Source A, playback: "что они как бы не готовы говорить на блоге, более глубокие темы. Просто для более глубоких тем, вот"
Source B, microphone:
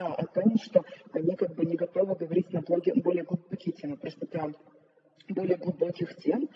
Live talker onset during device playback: none

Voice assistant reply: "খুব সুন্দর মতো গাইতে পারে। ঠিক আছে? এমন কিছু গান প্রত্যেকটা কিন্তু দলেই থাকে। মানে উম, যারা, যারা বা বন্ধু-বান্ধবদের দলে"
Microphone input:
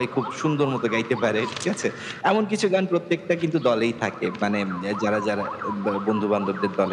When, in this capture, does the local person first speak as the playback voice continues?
none

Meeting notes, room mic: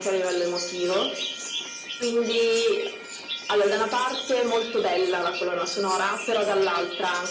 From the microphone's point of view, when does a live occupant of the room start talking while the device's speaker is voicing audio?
none

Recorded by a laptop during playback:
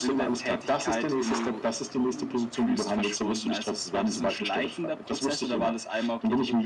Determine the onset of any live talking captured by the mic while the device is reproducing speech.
none

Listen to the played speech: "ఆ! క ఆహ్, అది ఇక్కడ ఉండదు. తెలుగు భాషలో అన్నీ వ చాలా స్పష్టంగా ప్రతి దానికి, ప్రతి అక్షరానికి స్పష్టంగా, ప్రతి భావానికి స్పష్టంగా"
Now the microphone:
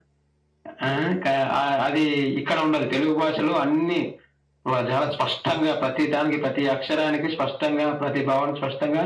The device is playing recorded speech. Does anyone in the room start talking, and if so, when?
none

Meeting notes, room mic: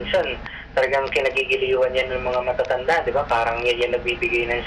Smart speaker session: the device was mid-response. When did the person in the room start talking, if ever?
none

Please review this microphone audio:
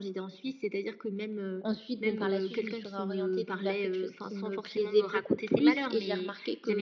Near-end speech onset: 1.6 s

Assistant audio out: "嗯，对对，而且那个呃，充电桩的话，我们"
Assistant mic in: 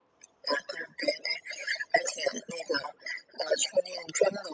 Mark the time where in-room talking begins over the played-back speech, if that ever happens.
none

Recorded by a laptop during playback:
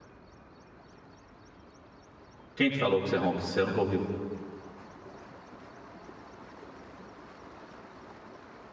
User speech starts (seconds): 2.5 s

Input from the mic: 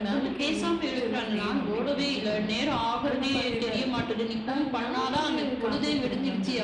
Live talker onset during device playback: none

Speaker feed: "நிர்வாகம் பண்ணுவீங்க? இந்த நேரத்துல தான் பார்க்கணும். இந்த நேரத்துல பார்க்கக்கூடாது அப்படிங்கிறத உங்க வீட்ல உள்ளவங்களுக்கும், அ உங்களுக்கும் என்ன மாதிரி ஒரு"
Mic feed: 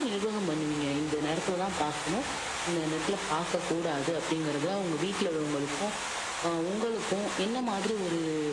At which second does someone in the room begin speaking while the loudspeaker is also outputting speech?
none

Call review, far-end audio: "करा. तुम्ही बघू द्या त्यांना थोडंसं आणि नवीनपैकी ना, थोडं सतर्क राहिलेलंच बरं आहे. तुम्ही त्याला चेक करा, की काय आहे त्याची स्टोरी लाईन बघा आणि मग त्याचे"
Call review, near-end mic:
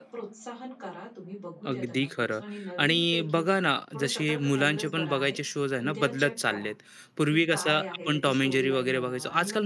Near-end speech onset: 1.7 s

